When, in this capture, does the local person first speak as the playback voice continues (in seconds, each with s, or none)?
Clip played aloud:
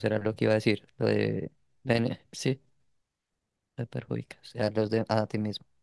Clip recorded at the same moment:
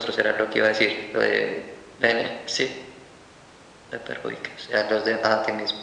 none